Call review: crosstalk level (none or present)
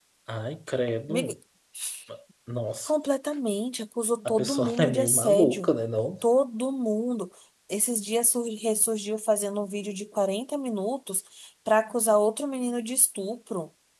present